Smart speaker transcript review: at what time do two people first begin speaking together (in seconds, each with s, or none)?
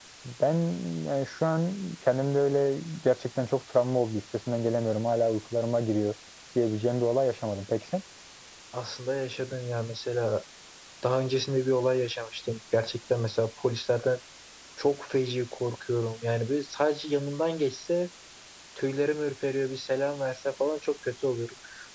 none